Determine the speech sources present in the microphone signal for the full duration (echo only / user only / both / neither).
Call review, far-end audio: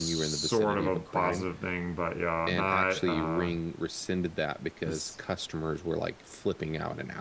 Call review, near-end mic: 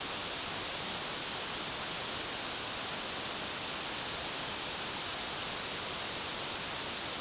neither